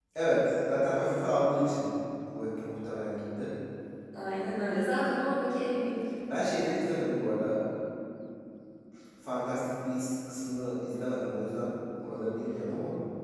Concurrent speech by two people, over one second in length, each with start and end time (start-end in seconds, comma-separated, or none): none